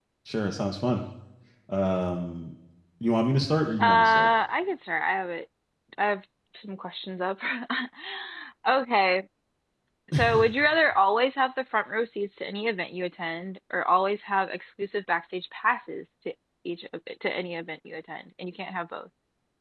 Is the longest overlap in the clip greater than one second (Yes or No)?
No